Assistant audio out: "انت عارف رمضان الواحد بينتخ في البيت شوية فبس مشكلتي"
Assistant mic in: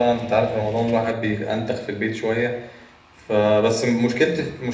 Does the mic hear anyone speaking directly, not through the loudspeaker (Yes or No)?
No